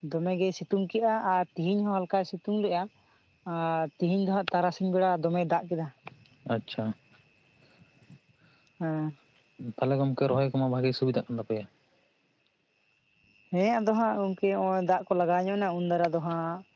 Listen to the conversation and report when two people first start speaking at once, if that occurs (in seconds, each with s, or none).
none